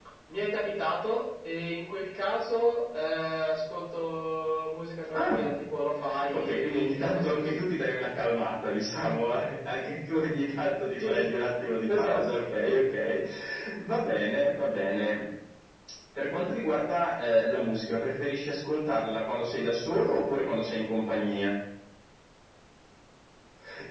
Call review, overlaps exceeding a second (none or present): present